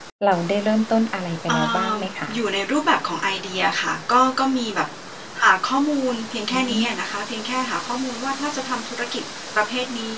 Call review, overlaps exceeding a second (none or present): none